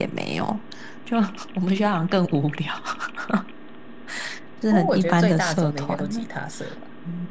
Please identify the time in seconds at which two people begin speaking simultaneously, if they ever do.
5 s

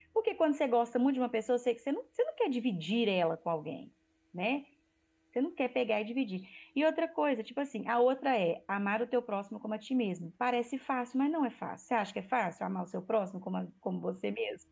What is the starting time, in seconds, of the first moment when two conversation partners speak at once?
none

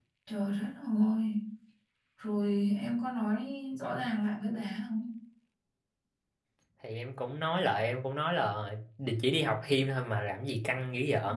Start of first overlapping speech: none

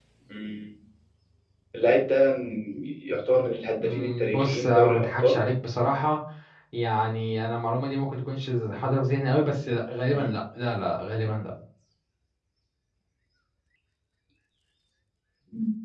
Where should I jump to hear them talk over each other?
4 s

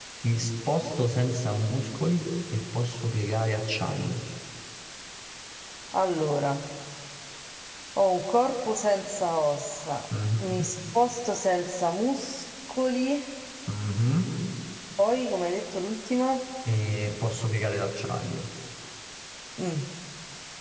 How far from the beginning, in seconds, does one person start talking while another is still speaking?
none

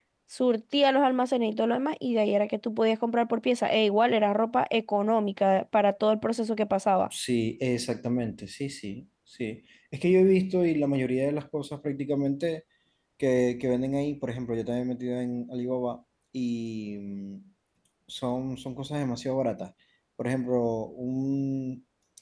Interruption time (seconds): none

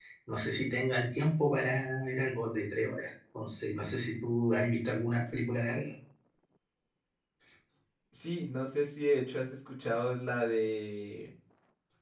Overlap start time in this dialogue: none

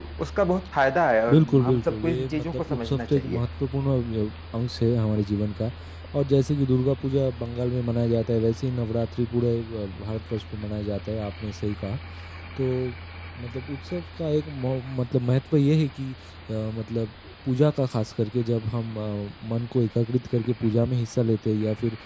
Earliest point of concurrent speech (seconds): 1 s

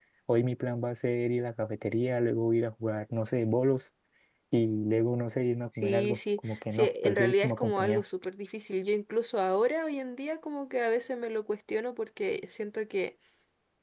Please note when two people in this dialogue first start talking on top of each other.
6 s

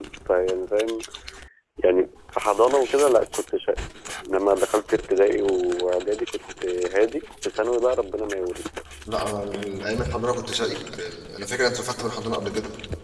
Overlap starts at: none

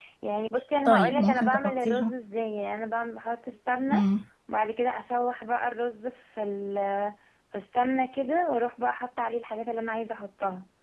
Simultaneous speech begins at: 1 s

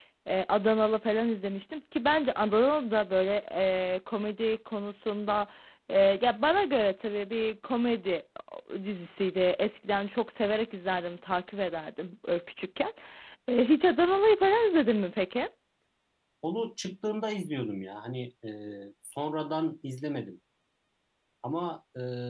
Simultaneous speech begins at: none

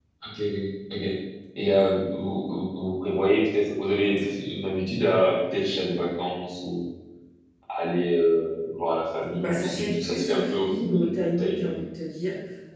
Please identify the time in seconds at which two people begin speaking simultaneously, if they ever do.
9 s

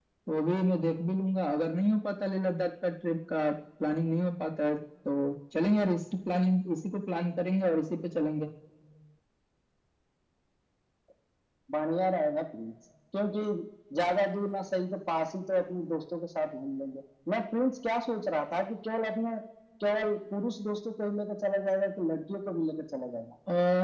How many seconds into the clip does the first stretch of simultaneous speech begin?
none

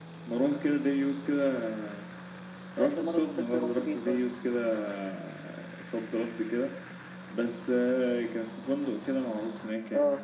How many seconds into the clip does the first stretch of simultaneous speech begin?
3 s

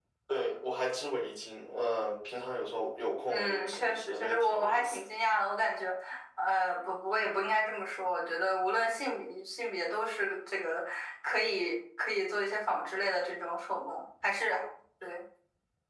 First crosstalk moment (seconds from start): 3 s

